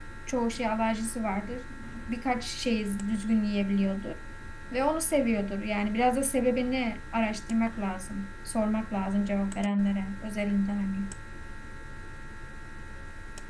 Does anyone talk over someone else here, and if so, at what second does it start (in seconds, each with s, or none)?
none